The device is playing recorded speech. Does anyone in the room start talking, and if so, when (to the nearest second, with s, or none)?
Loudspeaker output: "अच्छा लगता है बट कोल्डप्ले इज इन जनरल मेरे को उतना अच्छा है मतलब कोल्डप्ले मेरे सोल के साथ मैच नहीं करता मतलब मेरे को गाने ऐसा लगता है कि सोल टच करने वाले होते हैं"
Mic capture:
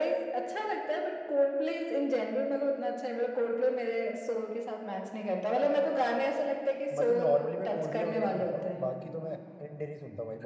7 s